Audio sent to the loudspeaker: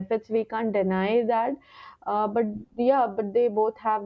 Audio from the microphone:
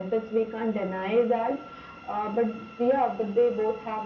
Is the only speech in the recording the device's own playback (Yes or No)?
Yes